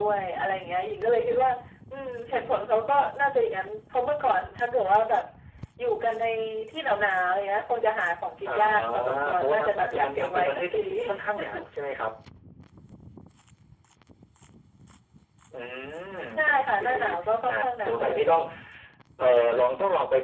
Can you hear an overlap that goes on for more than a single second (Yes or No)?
Yes